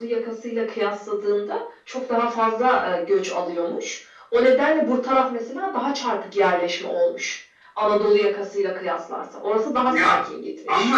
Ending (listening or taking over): taking over